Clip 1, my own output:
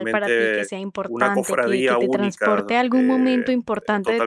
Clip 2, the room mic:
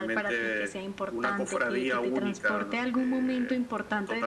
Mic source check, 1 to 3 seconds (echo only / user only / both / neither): echo only